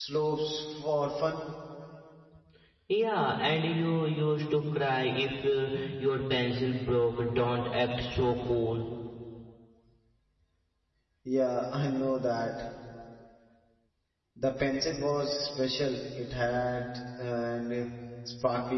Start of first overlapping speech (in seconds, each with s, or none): none